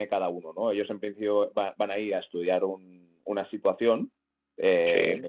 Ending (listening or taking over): listening